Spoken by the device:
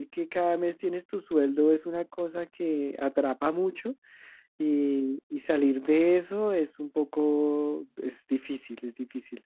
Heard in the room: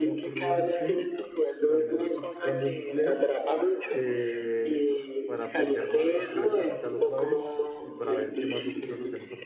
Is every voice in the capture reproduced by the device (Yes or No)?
No